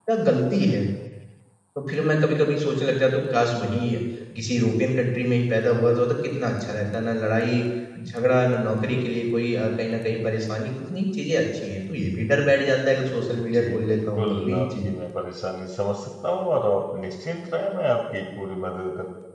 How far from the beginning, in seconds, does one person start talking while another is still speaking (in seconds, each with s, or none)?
13.3 s